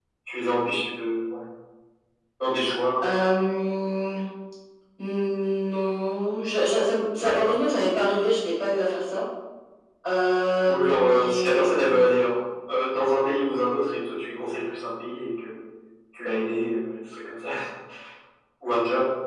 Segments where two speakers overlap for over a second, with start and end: 10.7-12.0

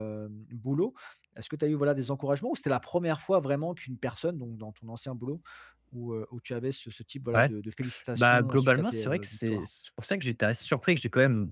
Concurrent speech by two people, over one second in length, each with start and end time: 8.2-9.7

